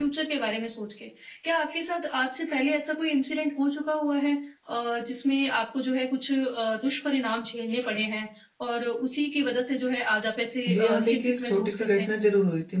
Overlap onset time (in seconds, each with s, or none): 10.7 s